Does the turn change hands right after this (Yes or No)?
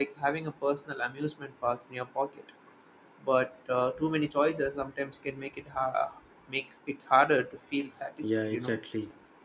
Yes